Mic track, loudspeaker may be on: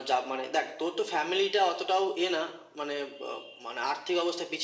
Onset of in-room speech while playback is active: none

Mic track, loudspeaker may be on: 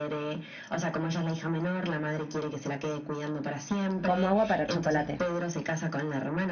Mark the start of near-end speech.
4.0 s

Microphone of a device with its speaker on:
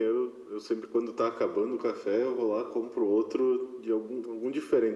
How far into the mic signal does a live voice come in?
none

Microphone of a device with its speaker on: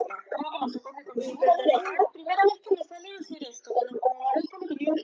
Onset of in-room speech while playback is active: 1.1 s

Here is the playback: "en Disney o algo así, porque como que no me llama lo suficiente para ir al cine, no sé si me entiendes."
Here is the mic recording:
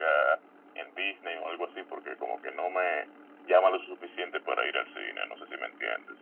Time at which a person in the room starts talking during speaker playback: none

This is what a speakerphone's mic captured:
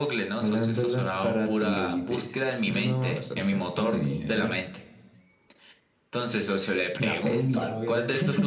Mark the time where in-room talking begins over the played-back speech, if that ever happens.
7.3 s

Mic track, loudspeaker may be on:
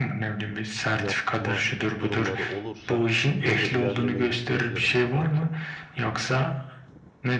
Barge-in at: 0.9 s

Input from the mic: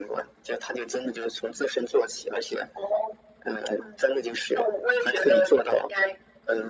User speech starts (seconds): none

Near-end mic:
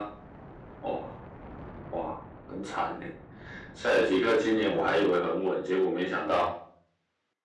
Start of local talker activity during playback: 4.7 s

